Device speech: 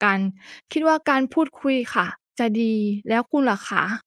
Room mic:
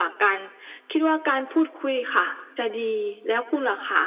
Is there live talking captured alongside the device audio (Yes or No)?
No